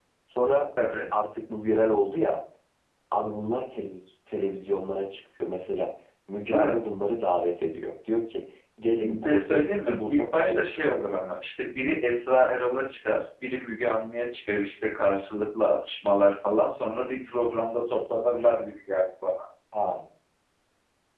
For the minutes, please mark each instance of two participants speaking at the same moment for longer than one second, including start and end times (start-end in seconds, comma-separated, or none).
9.0-10.8